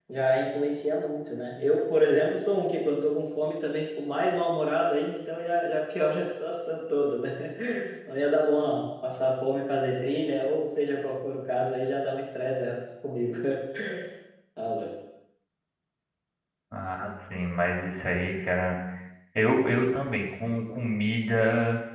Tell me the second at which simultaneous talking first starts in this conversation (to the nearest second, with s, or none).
none